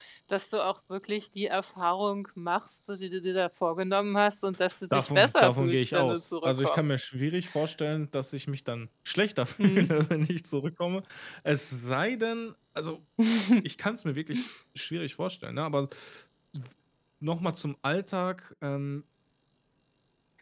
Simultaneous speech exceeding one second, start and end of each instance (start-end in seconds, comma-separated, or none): 4.9-6.8